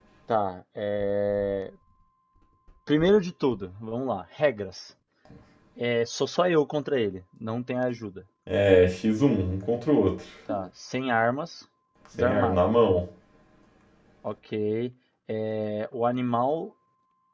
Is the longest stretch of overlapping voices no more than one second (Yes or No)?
Yes